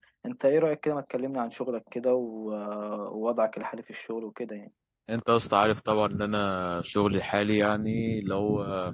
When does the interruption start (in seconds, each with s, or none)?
none